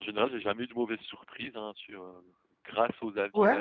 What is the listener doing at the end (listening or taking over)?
taking over